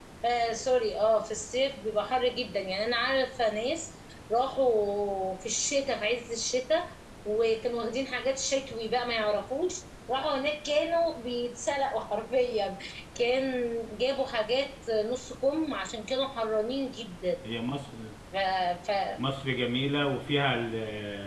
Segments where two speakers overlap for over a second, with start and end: none

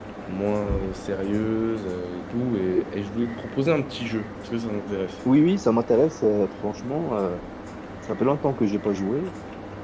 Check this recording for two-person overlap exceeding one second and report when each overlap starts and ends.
none

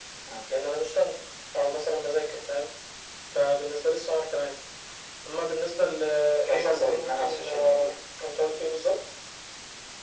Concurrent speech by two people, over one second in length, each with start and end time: 6.5-7.9

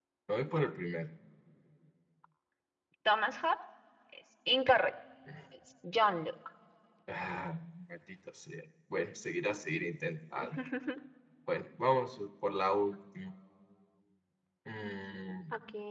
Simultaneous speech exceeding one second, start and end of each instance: none

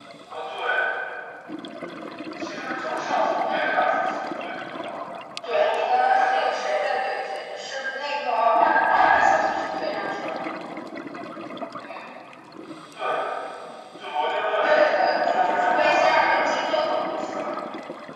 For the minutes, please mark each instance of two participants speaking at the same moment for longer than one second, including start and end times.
5.4-6.8, 14.6-16.6

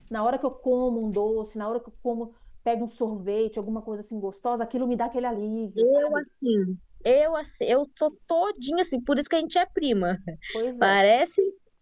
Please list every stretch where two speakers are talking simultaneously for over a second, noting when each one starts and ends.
none

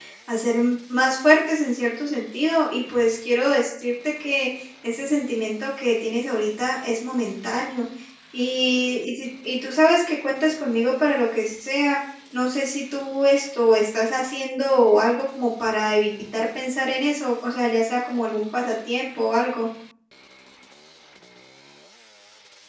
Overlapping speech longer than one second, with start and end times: none

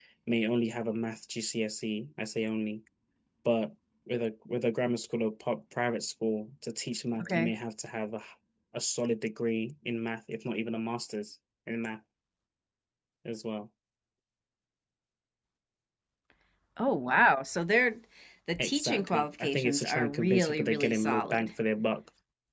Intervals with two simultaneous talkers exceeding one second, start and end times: 18.6-21.5

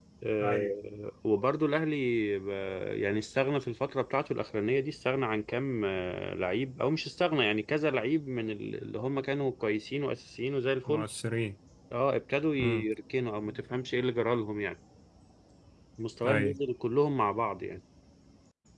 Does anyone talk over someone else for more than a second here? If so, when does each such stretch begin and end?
none

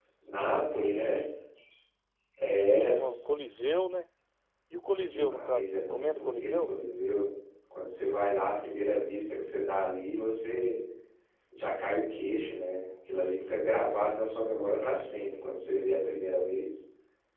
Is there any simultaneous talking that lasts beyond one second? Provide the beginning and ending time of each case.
5.0-6.7

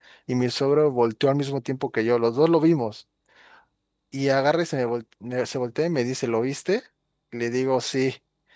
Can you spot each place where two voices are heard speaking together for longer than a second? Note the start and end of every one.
none

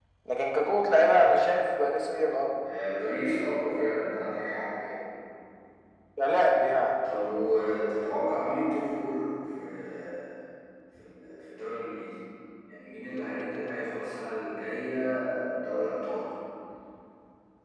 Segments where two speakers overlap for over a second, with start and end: none

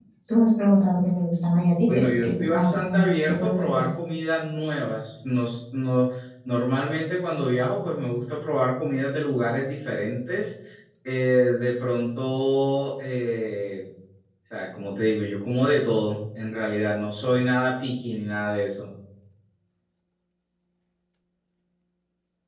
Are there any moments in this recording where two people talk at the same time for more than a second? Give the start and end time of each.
1.9-3.8

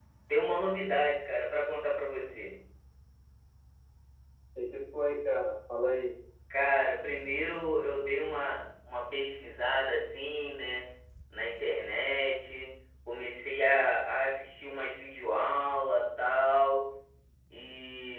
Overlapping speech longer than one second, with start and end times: none

